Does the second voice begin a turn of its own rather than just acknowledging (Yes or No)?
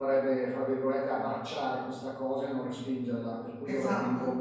No